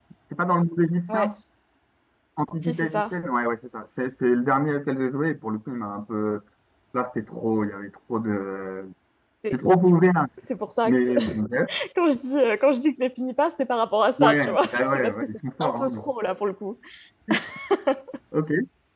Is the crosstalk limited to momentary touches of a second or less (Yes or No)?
No